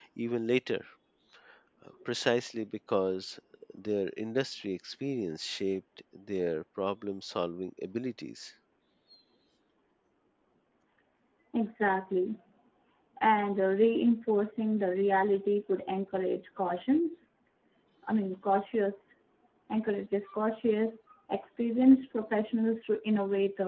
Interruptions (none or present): none